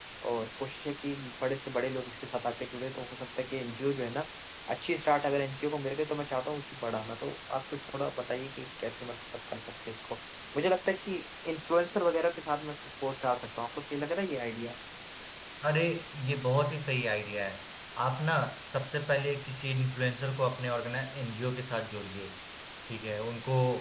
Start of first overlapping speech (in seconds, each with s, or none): none